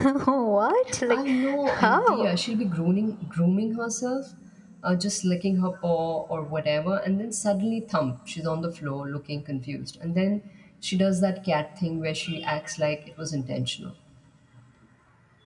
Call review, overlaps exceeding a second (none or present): present